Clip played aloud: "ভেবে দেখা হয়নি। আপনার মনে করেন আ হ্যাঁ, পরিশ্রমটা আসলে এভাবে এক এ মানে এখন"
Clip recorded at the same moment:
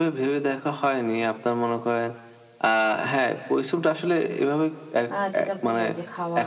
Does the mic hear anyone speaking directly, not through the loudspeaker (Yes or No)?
Yes